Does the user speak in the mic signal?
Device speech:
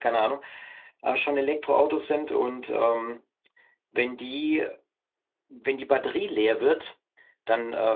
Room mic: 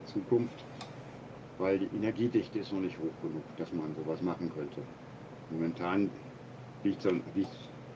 Yes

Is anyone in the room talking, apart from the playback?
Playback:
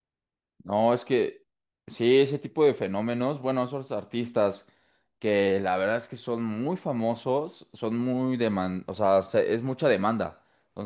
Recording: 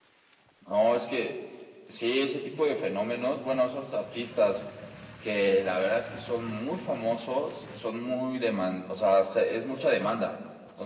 No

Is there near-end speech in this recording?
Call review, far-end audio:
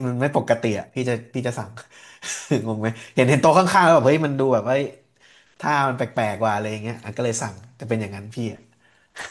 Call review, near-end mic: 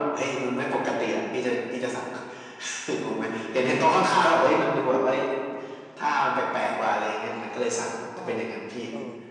Yes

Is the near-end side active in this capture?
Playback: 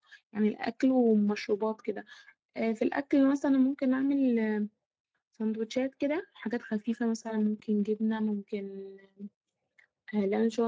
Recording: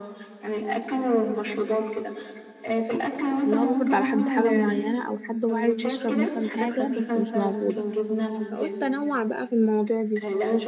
Yes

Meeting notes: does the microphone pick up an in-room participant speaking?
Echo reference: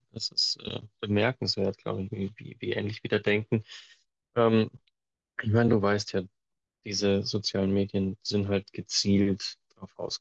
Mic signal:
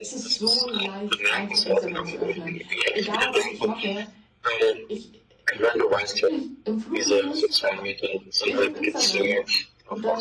Yes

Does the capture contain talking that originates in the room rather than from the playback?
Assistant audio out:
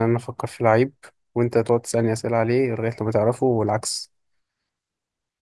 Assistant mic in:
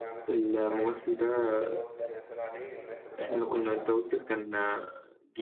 Yes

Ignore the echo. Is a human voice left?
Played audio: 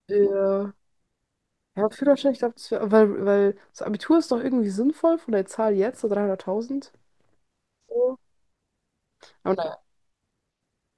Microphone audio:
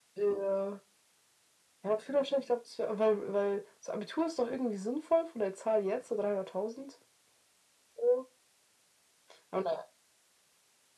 No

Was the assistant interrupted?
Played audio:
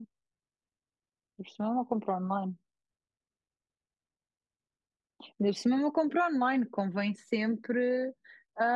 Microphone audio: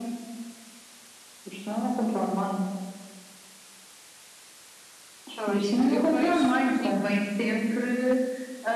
Yes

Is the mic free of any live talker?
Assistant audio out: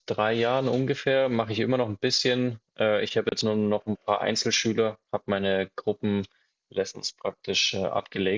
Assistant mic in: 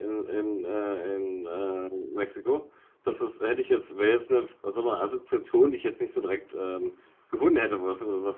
No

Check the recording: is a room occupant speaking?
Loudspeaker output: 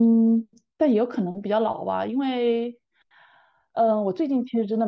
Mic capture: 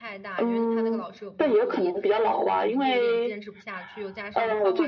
Yes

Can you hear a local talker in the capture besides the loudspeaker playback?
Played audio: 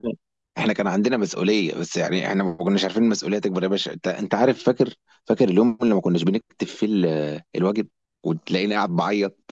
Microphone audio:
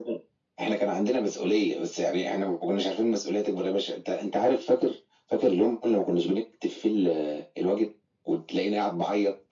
No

